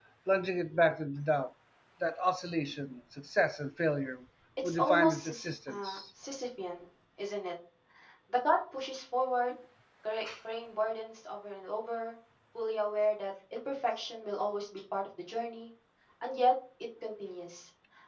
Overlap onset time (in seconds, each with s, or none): 4.6 s